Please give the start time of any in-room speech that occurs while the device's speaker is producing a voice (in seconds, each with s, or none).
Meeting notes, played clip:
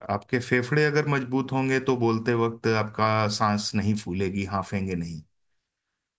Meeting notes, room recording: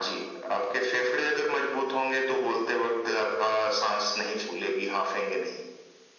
none